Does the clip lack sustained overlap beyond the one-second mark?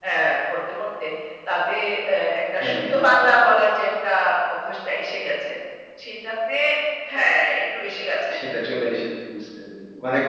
Yes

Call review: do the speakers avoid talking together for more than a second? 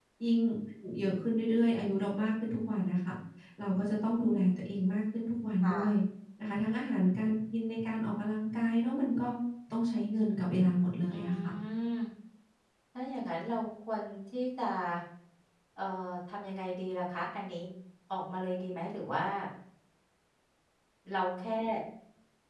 Yes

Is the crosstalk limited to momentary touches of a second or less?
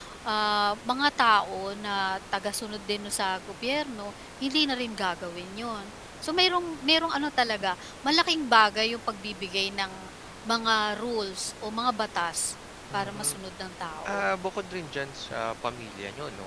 Yes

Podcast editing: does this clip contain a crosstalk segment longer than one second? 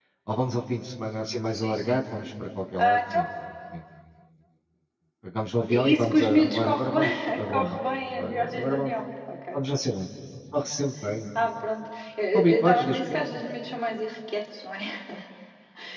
Yes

